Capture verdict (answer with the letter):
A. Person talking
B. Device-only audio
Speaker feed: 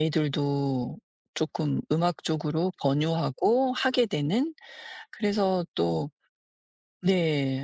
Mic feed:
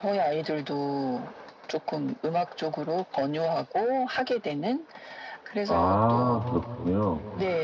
A